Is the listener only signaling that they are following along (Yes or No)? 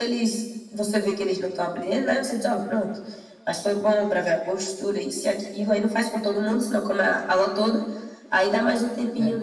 Yes